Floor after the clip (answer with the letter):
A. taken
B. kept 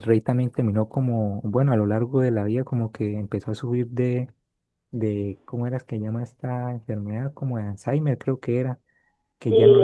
A